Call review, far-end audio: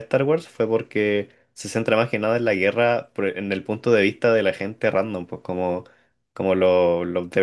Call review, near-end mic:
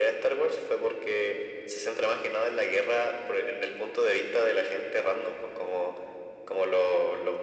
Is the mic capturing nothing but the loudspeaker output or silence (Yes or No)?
Yes